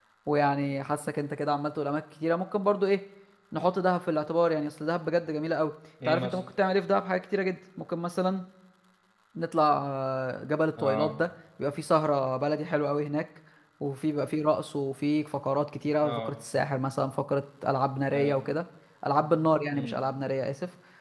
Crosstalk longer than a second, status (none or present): none